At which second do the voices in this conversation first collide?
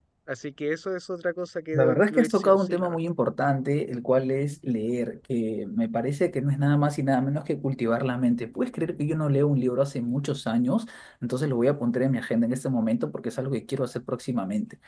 1.7 s

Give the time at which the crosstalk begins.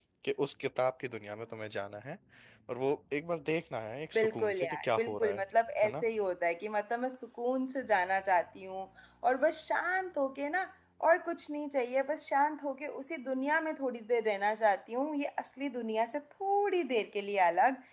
4.2 s

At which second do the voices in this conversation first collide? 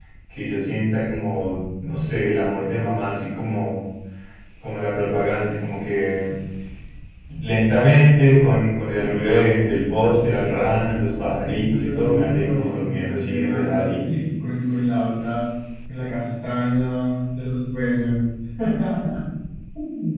11.0 s

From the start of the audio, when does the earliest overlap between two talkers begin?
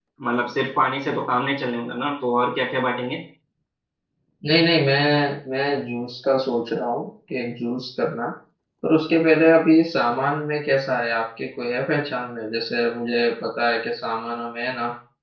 none

